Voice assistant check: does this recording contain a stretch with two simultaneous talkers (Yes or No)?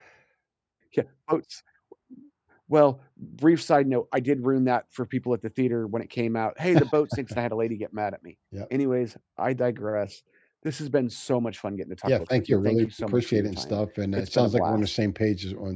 Yes